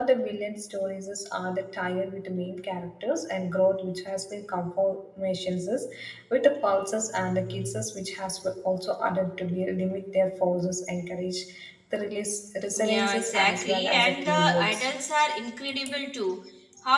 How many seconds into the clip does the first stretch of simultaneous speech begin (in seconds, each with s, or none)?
12.8 s